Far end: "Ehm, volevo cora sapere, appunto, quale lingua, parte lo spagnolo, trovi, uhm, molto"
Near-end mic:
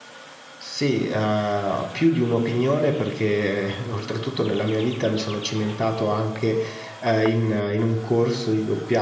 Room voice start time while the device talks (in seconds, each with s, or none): 0.6 s